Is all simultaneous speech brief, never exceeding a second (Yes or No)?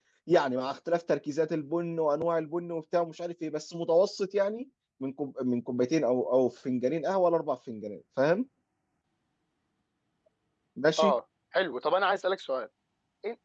Yes